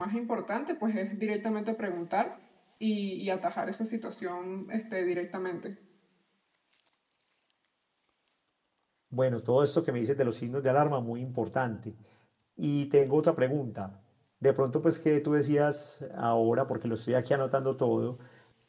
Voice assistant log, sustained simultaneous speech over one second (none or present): none